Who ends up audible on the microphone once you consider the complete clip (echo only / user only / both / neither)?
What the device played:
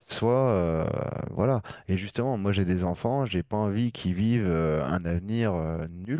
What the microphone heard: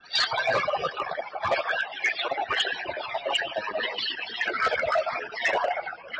echo only